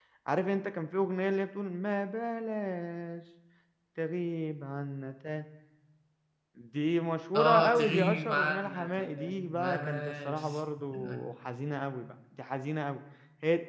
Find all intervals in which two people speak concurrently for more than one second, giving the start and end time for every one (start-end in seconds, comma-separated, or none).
7.3-10.6